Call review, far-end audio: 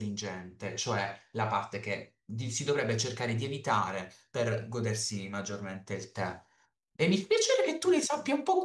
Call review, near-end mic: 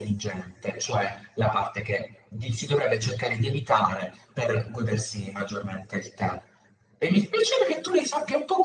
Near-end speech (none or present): none